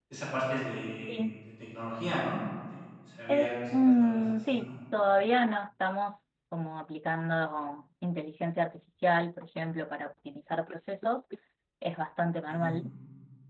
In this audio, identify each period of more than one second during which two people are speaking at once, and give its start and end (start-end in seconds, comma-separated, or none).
3.3-4.7